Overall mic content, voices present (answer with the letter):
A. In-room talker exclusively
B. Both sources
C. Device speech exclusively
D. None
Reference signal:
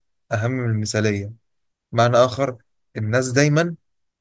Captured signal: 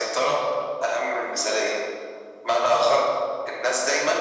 C